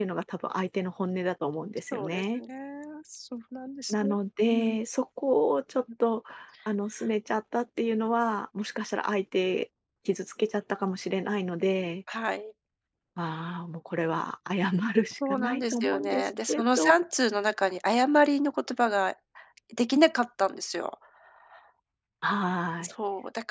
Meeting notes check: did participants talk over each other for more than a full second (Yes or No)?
Yes